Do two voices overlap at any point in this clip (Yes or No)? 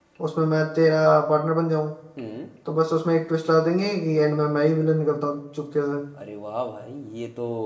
No